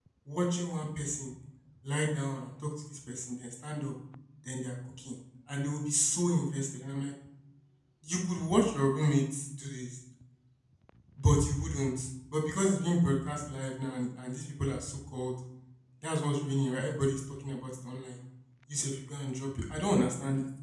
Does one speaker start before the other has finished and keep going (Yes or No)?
No